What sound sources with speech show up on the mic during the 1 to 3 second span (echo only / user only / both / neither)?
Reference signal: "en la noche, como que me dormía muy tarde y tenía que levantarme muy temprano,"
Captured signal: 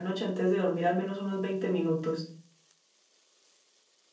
user only